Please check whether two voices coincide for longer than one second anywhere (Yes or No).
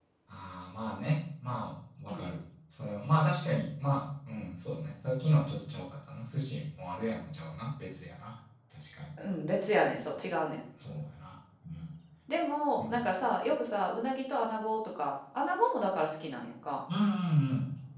No